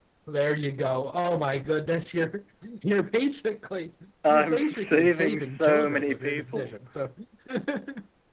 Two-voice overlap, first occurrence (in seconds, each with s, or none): 4.2 s